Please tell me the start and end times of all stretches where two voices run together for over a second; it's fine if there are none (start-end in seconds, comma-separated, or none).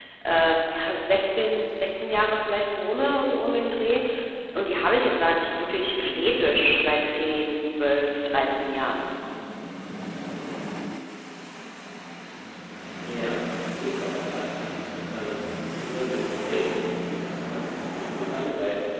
none